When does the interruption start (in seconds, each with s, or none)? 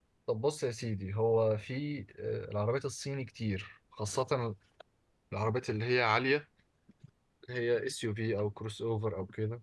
none